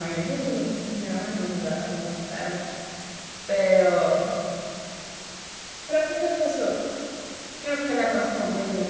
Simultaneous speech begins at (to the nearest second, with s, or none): none